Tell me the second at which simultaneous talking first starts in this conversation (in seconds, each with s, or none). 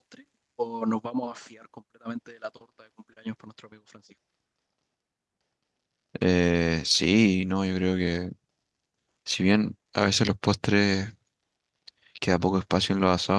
none